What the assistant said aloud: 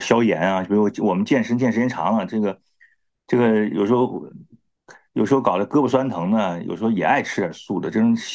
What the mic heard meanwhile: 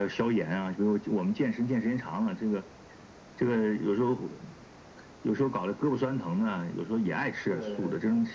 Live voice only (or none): 这个